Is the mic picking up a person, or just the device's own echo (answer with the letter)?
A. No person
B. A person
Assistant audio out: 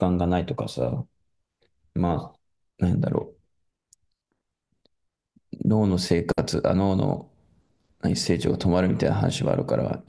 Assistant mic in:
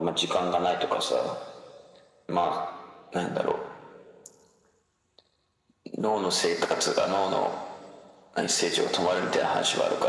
A